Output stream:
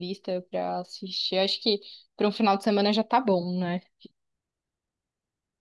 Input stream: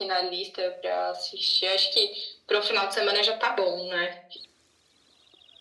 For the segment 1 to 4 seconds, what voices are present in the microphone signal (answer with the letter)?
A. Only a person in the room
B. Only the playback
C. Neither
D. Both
B